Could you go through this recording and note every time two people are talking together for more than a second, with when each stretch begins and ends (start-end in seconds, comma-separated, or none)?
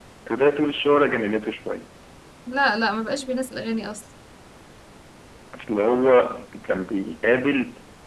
none